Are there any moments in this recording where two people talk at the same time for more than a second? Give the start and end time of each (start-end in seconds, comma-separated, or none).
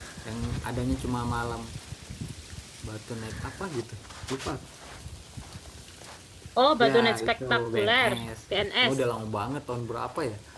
6.8-8.2